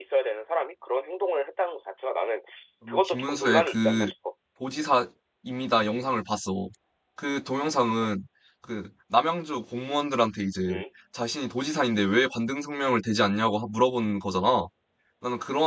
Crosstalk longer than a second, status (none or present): present